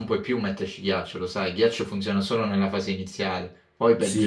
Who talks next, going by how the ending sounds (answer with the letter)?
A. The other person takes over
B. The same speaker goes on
A